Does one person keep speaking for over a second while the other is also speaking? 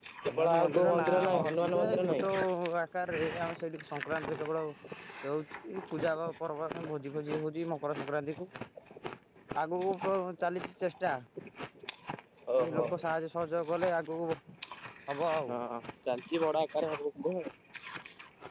Yes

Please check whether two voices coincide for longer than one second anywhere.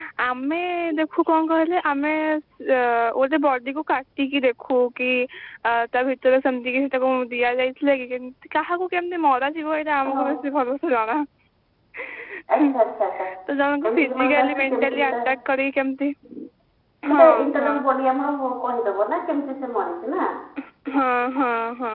Yes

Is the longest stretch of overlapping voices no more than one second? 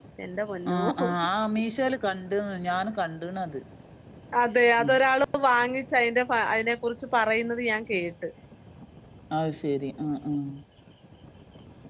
Yes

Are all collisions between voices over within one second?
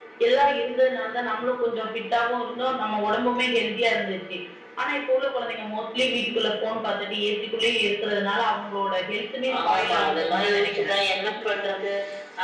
No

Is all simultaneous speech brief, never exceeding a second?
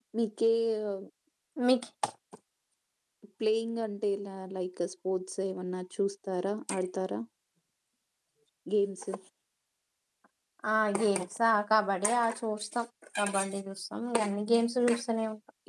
Yes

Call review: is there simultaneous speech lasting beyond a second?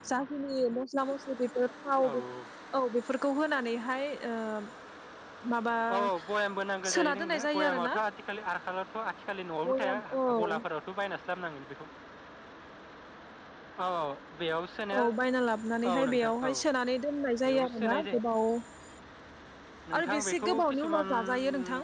Yes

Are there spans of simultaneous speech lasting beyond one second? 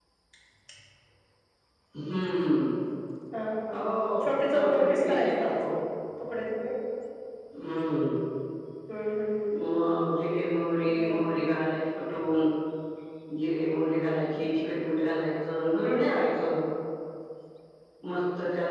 Yes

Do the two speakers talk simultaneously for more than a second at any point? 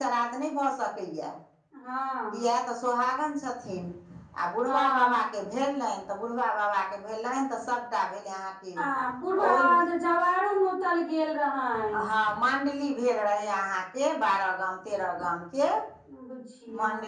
No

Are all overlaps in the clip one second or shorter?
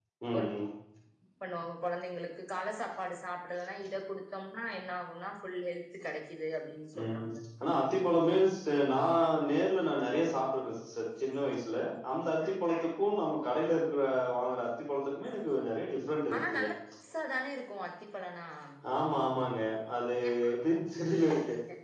Yes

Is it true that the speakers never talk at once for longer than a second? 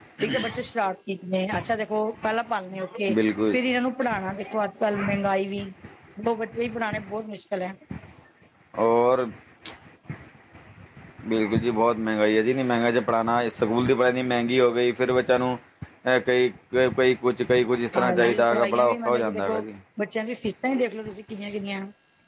No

